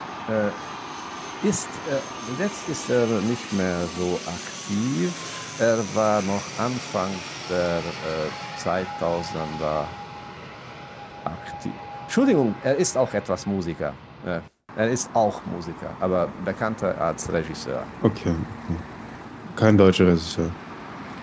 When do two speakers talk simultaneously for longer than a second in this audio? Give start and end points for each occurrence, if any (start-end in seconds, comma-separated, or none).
none